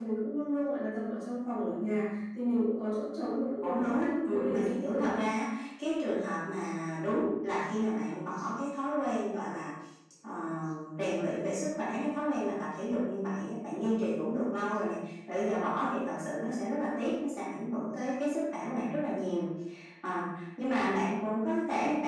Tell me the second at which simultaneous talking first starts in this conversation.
3.6 s

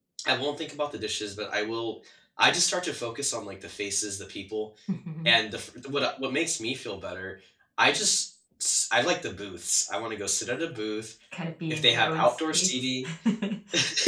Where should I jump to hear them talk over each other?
11.7 s

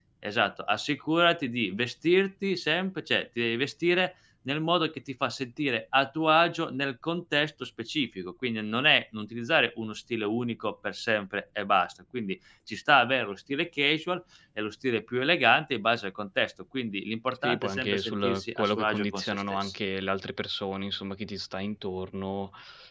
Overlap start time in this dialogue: 17.3 s

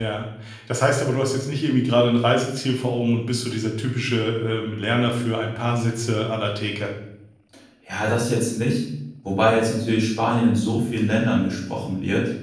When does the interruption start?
none

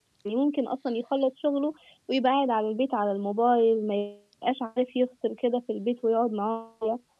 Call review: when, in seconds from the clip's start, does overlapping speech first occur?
none

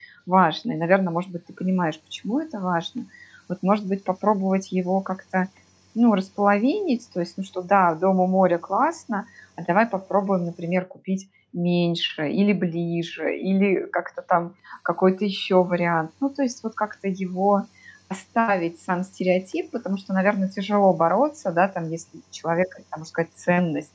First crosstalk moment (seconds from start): none

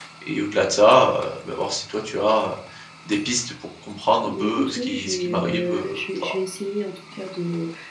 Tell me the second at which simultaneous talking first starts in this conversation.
4.2 s

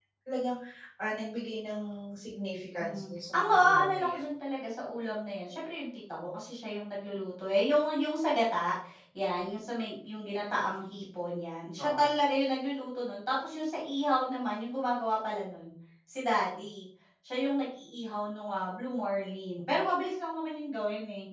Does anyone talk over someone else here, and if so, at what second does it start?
2.8 s

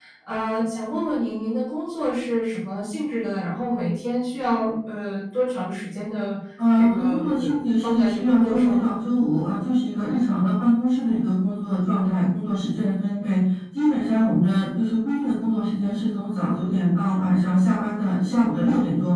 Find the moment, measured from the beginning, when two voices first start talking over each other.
6.8 s

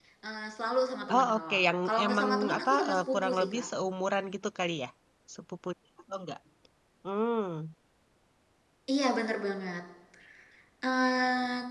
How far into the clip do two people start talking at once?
1.1 s

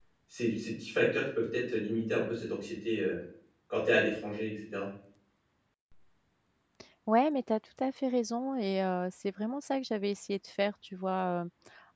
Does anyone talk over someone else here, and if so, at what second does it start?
none

